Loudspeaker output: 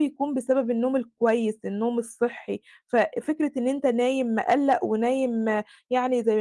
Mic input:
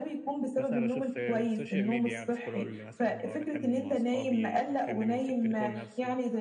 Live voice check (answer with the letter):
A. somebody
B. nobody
A